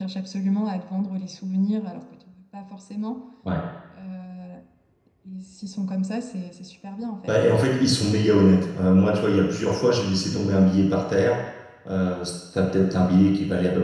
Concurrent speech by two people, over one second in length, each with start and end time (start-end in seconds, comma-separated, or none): none